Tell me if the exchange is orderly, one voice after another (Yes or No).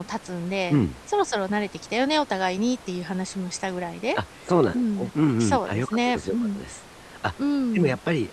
No